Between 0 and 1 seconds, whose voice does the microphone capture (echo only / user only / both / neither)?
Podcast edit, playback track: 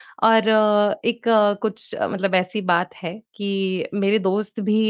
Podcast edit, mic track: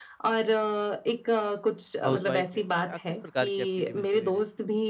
echo only